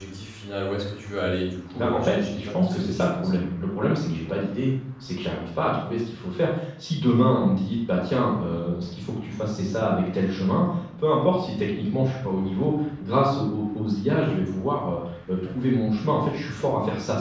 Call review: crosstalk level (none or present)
present